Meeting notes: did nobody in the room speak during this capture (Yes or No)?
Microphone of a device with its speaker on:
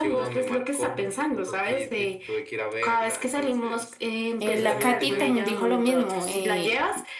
No